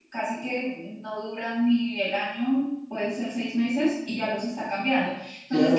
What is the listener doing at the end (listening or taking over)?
taking over